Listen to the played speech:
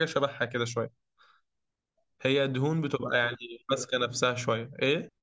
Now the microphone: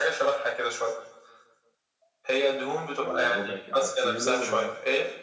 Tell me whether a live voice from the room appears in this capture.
Yes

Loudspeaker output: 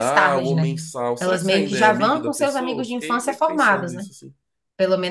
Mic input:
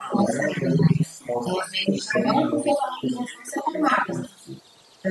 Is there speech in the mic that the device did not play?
No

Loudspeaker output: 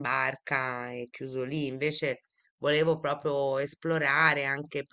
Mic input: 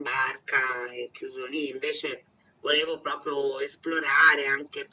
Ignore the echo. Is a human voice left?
No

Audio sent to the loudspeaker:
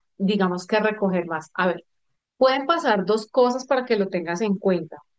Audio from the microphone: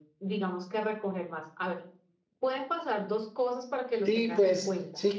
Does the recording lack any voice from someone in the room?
No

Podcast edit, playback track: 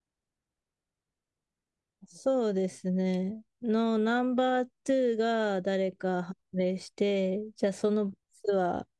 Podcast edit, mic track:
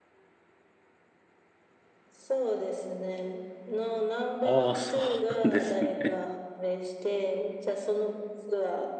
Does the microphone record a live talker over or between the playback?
Yes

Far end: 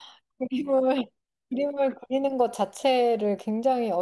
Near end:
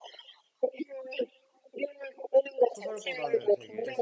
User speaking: Yes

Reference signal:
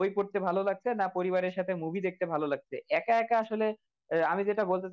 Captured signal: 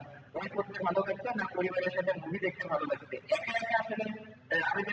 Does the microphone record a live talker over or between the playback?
No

